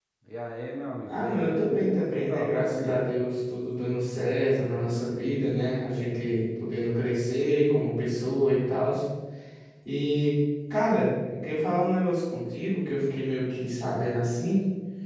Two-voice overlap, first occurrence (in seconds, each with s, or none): 1.1 s